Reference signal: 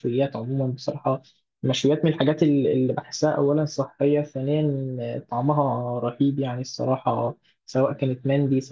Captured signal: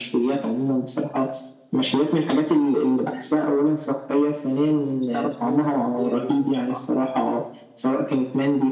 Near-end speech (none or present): present